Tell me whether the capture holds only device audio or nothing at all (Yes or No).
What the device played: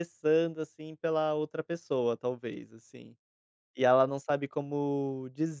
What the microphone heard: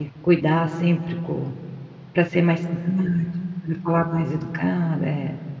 No